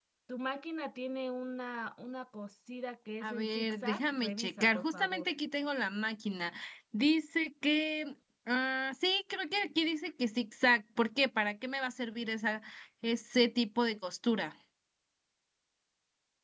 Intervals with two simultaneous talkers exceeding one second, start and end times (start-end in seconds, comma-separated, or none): 3.2-5.3